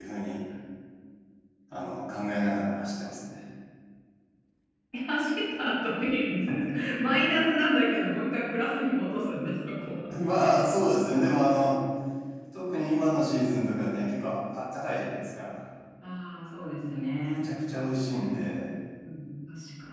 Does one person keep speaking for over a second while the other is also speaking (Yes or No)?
No